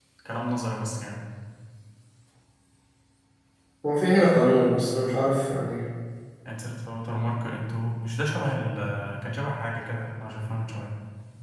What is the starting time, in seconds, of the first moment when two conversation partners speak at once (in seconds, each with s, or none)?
none